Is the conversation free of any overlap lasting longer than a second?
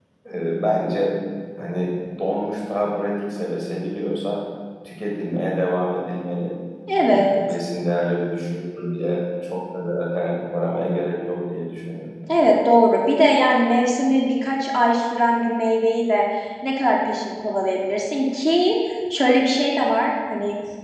Yes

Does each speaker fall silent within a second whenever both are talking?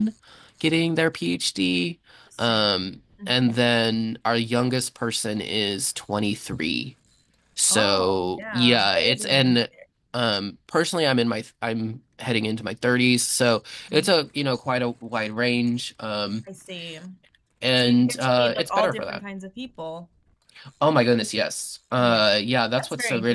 No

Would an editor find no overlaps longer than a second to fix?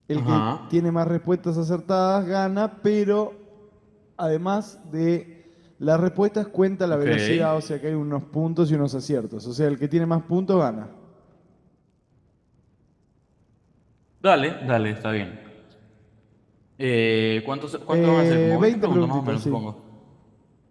No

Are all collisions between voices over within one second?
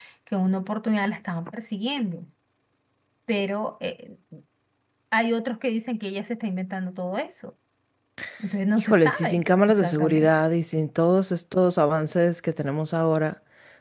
No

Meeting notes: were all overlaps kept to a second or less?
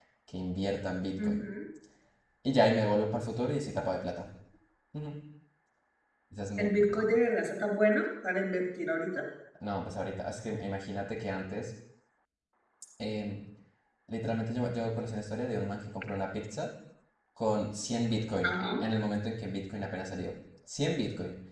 Yes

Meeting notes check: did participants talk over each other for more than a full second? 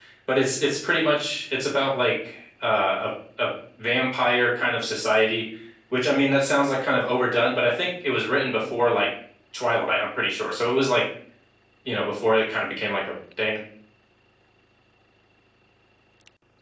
No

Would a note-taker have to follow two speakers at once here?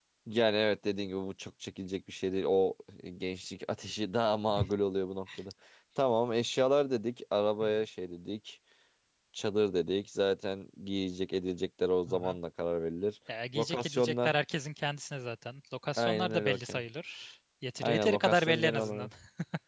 Yes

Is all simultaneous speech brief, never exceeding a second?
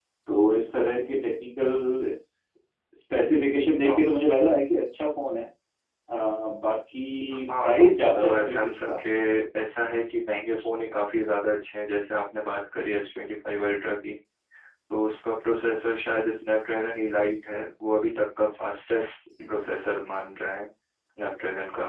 No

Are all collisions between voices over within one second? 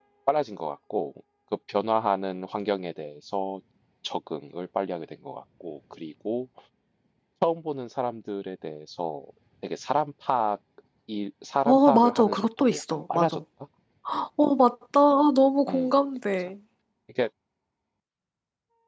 No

